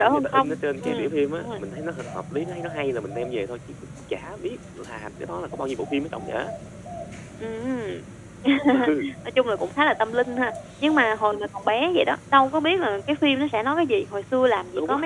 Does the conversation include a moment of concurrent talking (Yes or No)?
Yes